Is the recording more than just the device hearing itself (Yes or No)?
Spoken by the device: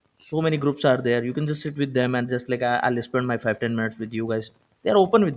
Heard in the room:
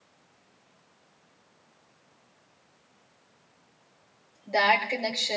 Yes